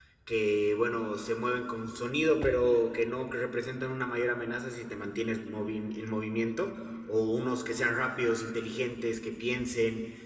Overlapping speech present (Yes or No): No